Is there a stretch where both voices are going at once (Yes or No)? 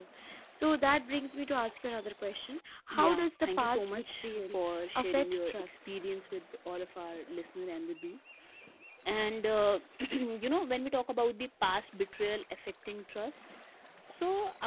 Yes